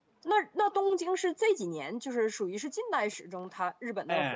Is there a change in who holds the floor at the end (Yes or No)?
Yes